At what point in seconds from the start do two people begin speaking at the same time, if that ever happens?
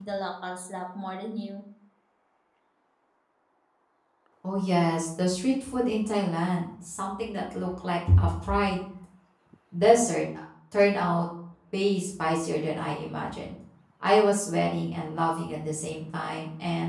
none

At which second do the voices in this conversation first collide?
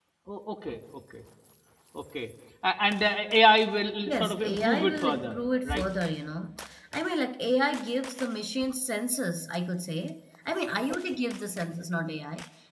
4.0 s

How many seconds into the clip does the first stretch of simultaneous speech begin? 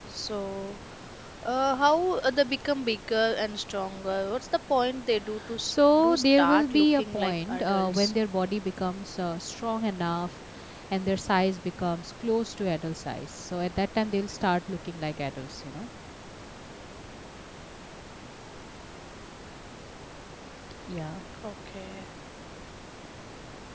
5.6 s

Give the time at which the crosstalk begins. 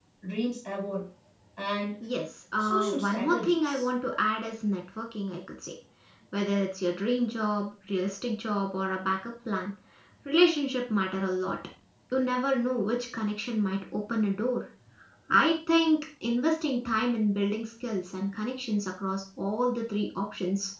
2.6 s

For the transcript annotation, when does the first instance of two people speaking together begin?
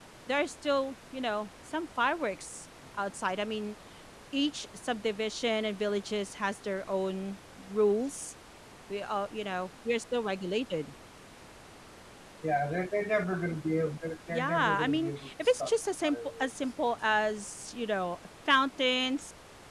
14.3 s

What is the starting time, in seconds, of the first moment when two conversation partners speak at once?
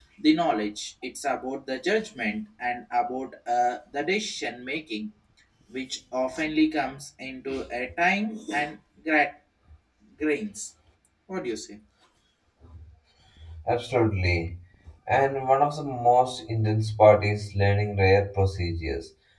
none

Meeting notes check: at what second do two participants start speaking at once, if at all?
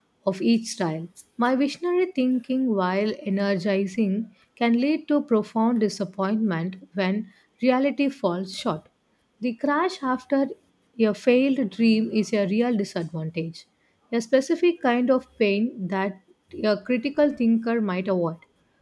none

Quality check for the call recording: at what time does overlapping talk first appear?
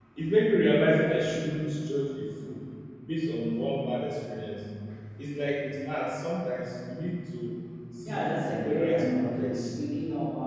8.0 s

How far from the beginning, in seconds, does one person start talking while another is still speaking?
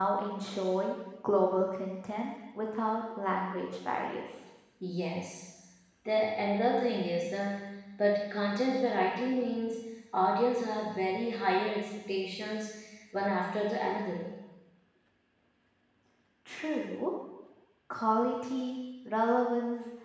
none

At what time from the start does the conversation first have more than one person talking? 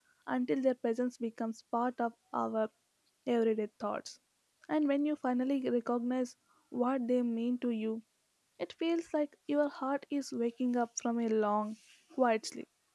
none

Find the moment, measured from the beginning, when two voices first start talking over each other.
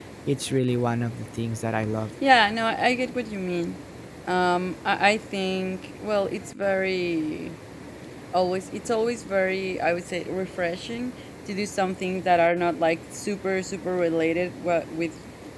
none

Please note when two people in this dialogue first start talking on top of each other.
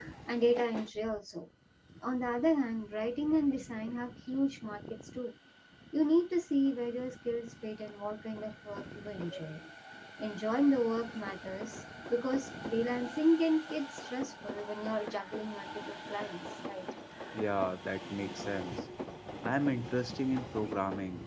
none

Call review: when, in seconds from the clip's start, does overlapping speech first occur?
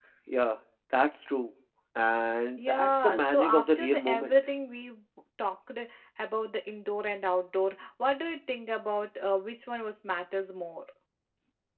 2.6 s

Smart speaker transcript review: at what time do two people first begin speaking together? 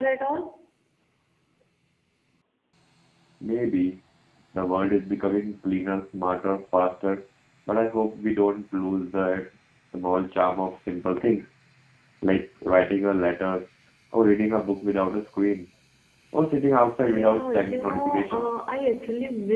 17.0 s

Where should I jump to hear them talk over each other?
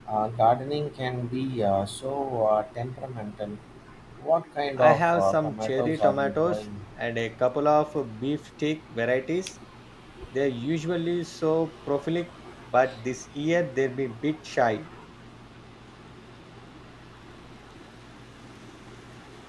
4.8 s

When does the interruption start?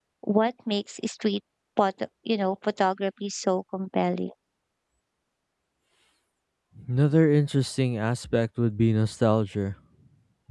none

